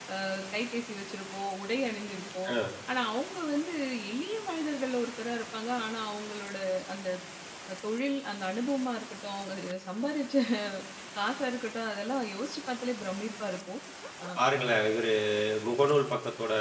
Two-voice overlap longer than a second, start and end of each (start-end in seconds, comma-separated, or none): none